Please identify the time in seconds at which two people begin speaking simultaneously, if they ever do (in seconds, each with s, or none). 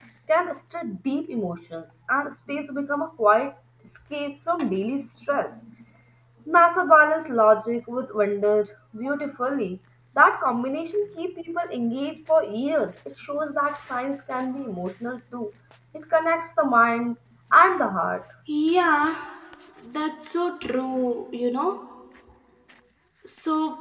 none